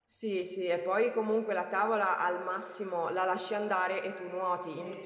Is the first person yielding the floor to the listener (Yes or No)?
No